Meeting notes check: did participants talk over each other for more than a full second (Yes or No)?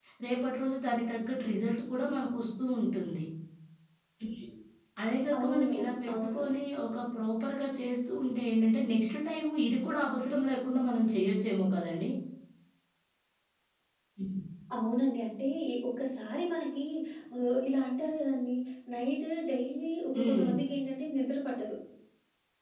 No